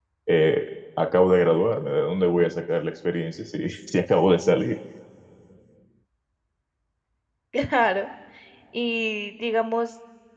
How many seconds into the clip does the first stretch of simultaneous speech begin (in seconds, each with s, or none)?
none